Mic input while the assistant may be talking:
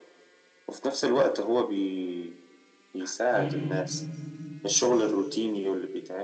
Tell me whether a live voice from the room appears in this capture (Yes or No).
Yes